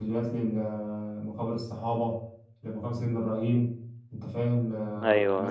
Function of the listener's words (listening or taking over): listening